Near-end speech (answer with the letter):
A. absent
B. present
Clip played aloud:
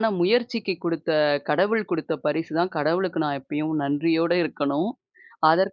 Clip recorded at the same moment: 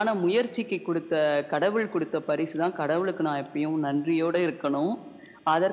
A